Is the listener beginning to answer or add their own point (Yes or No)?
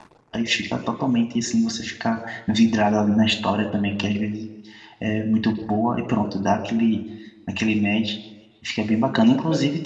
No